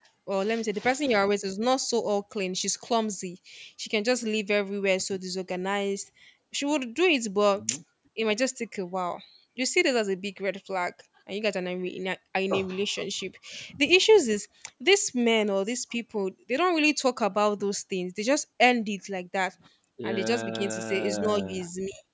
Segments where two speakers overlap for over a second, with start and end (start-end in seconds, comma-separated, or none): 20.0-21.6